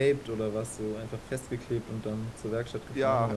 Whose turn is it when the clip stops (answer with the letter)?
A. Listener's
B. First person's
A